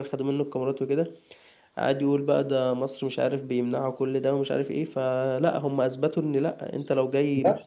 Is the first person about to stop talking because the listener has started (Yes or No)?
No